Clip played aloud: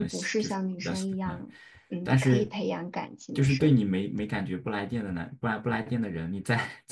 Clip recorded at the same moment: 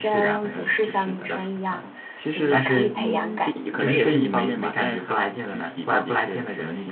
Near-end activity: present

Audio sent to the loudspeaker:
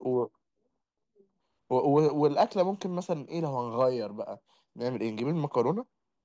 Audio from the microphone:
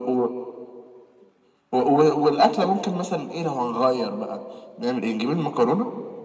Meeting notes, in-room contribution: none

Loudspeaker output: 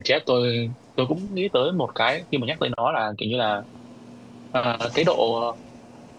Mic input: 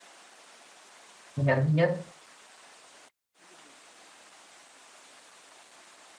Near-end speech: present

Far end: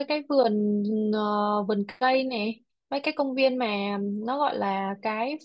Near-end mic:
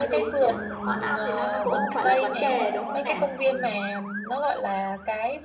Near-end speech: present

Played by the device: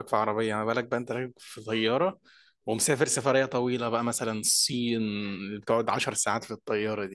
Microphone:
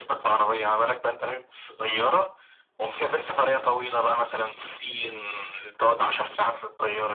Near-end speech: none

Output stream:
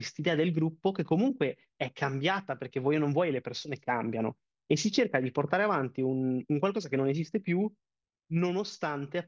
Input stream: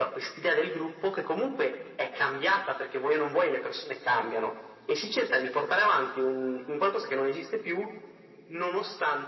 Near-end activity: none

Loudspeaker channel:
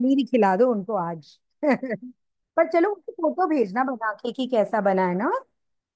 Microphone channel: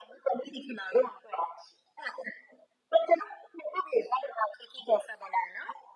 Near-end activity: none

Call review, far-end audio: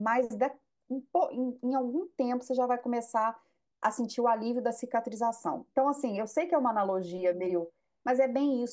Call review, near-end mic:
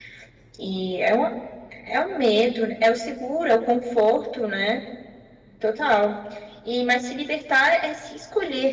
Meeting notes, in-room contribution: present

